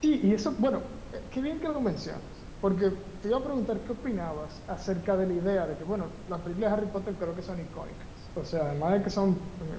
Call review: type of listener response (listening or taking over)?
listening